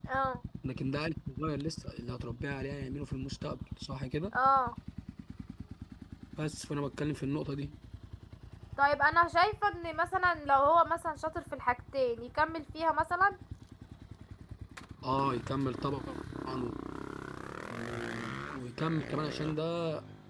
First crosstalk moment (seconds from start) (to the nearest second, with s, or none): none